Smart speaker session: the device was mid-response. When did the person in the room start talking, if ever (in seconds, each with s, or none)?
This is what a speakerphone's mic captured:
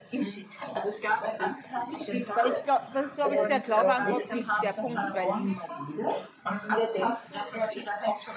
2.3 s